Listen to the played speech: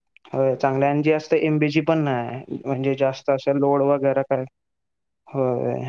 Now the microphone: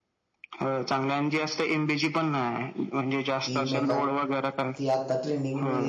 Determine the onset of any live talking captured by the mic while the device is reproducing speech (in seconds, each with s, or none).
3.4 s